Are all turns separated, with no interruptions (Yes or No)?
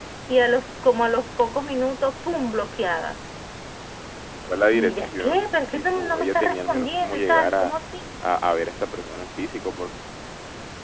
No